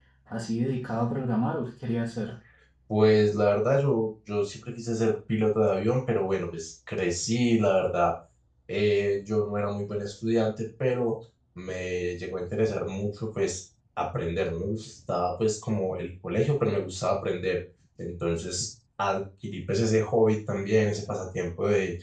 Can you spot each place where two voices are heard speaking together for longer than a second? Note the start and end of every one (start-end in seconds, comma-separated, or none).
none